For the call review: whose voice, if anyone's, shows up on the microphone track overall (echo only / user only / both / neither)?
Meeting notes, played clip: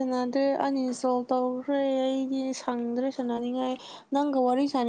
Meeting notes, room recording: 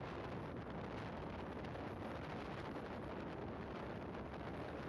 neither